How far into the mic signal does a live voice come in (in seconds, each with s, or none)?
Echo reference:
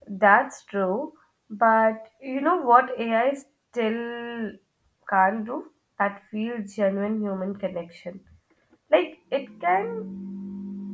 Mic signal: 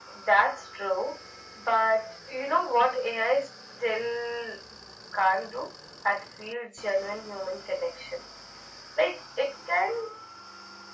none